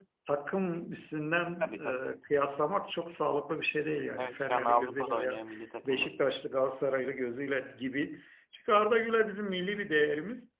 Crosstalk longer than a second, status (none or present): present